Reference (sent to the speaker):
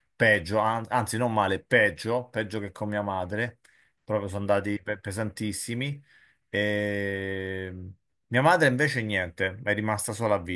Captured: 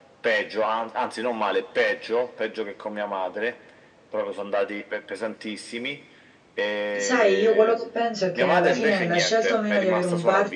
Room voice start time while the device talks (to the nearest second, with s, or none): 7 s